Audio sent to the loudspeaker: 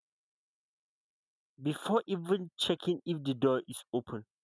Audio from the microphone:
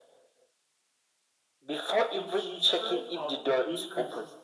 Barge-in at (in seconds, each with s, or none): 2.1 s